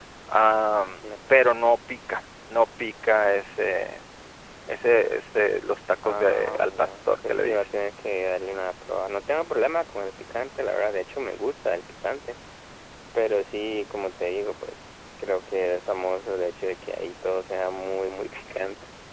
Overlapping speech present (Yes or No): Yes